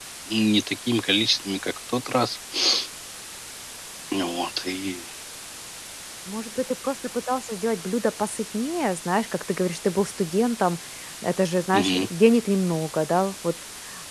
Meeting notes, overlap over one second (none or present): none